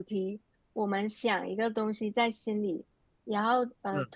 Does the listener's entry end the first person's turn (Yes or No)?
No